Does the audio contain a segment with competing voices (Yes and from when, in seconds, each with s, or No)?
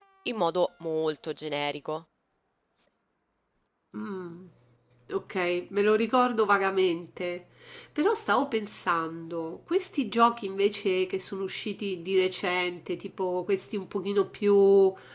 No